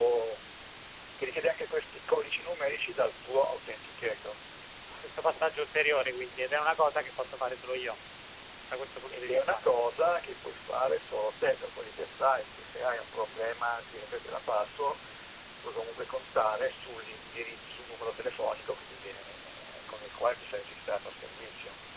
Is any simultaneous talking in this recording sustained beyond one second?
No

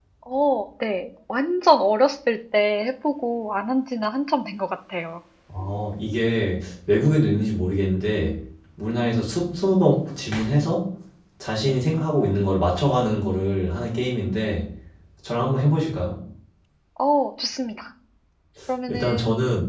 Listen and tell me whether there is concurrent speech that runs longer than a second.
No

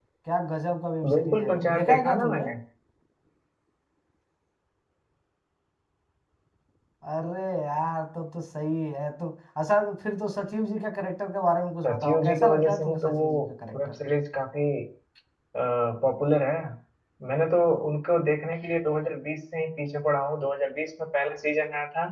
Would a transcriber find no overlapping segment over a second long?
No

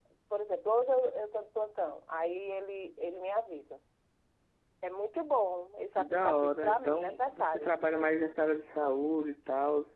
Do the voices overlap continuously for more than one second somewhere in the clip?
Yes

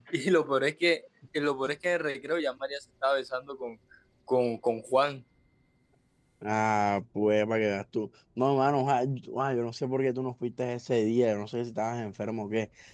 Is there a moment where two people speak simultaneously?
No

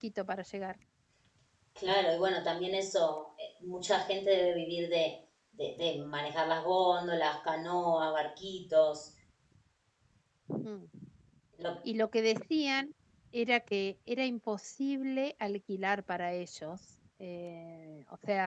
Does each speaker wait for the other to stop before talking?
Yes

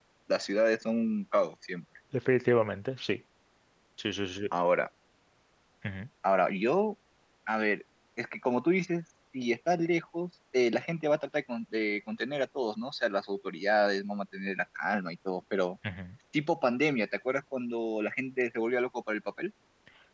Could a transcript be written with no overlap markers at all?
Yes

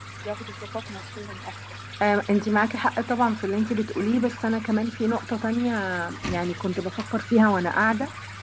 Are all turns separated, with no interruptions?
Yes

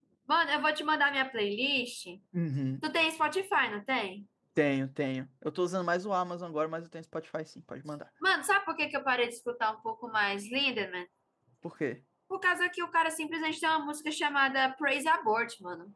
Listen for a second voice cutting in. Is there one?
No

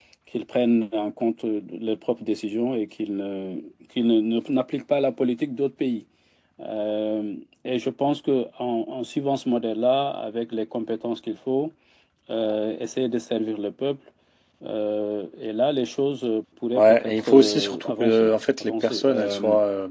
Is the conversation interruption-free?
No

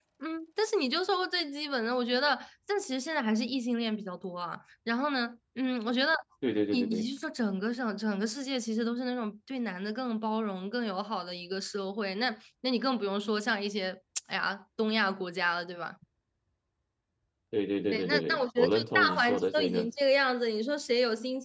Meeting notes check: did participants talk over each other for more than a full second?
Yes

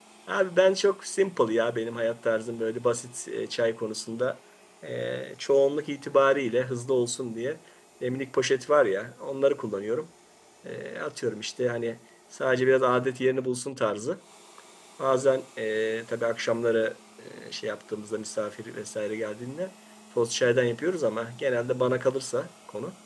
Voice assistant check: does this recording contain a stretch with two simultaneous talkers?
No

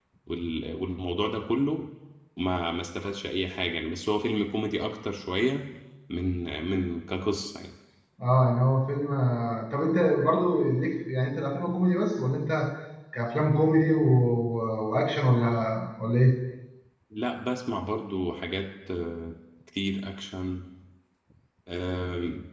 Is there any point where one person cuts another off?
No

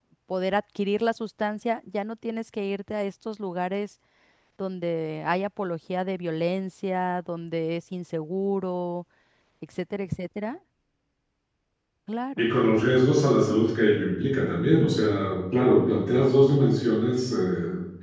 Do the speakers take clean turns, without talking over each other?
Yes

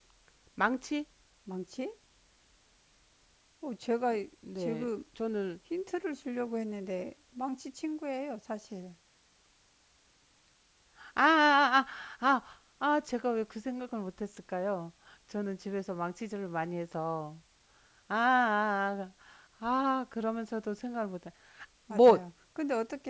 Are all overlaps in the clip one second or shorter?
Yes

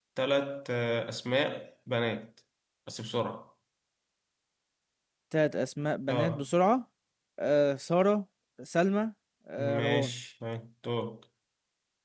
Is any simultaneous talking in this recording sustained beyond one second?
No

